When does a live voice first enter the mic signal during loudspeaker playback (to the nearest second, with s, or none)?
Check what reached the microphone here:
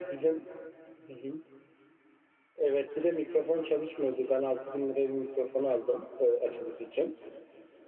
none